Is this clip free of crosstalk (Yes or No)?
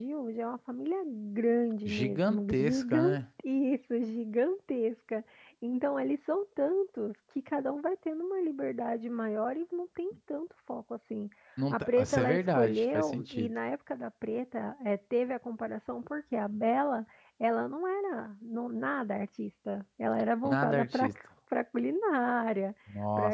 No